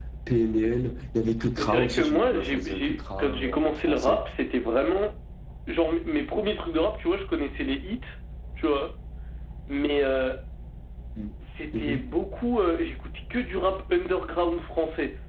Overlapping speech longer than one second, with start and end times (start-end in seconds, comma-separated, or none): 1.6-4.2